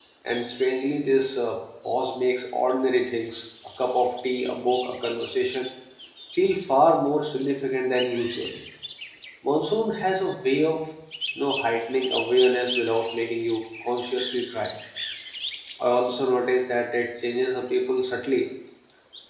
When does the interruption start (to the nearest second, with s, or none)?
none